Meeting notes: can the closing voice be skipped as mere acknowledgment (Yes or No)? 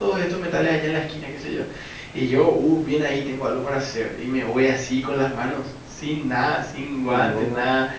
Yes